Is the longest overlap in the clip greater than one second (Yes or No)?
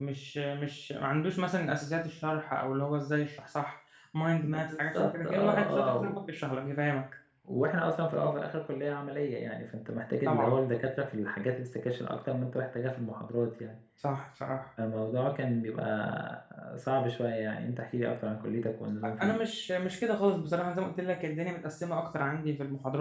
Yes